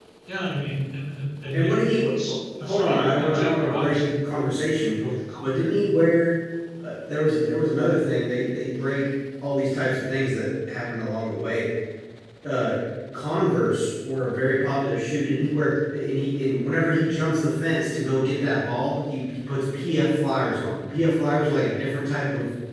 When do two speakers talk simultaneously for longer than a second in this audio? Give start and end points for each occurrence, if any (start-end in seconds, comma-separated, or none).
2.6-4.4